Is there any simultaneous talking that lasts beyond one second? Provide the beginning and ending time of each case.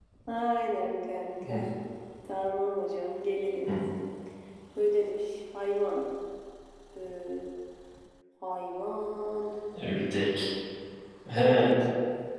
none

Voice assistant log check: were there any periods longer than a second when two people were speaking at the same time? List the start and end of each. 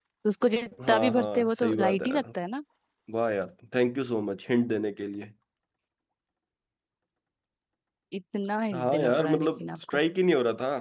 0.9-2.2, 8.7-10.0

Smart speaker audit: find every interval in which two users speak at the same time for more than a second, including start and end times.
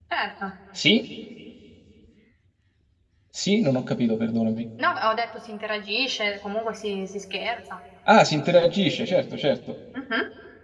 none

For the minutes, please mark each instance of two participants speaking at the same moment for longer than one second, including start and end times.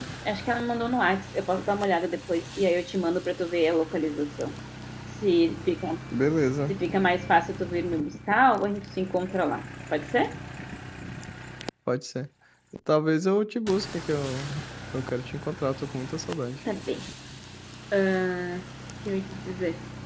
none

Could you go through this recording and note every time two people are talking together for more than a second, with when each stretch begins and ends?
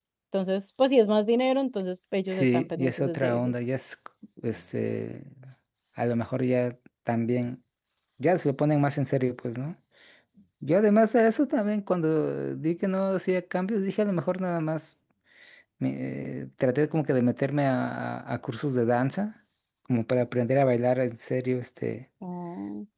2.3-3.5

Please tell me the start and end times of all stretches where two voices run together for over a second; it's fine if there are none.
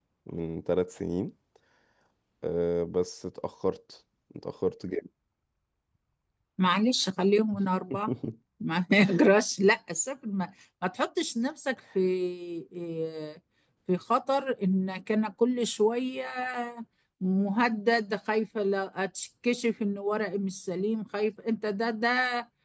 none

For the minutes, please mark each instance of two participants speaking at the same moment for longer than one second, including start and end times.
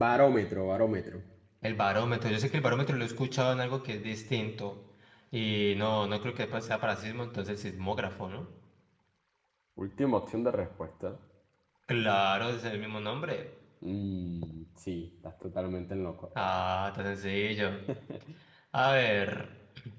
none

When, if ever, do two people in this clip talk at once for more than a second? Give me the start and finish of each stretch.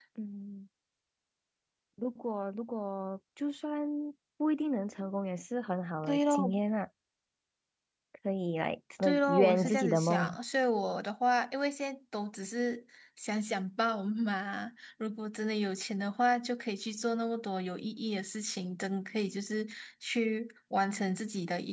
9.0-10.4

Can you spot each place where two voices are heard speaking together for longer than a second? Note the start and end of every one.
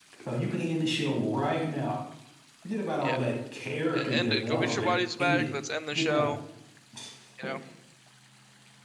4.0-5.4

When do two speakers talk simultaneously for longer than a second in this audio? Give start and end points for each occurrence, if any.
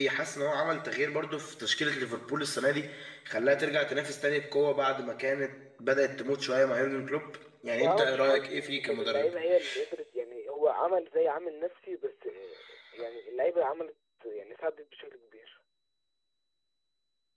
7.7-9.3

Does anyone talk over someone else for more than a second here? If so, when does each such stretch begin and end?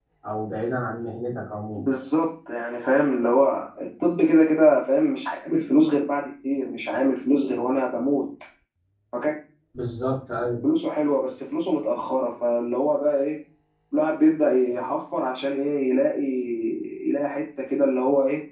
none

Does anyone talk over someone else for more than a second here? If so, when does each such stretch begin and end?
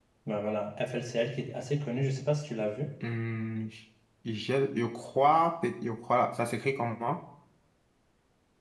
none

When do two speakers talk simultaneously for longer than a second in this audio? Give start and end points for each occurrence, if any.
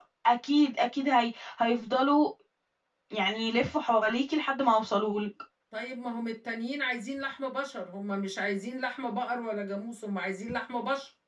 none

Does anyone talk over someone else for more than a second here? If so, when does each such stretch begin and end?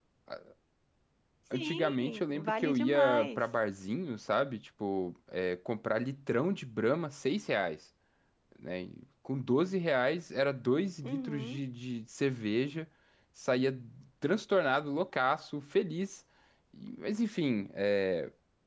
1.5-3.4

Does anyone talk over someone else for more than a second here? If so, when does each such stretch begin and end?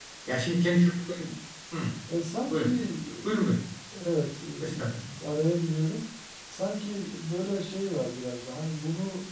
none

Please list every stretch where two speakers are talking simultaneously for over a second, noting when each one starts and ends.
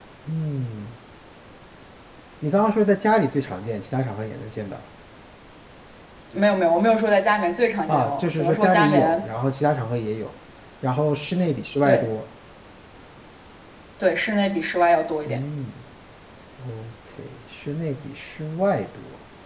7.9-9.2

